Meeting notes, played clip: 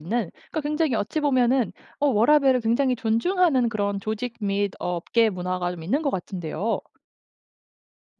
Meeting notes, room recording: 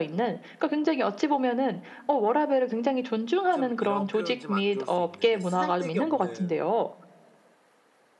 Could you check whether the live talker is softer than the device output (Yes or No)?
Yes